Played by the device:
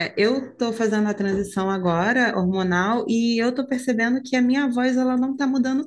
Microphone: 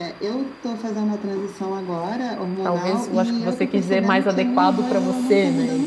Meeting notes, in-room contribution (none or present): present